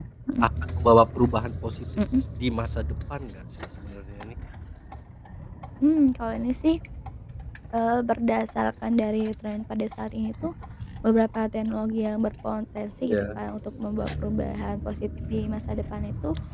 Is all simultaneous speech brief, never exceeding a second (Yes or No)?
Yes